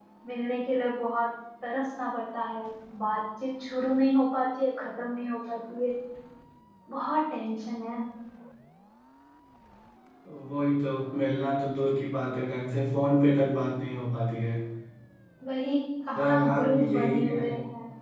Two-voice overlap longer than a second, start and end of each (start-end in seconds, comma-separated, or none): 16.2-17.4